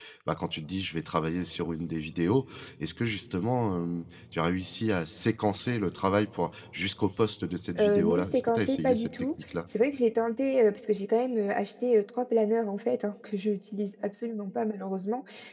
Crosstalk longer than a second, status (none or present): present